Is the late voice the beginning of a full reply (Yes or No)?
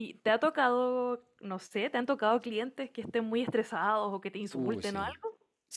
Yes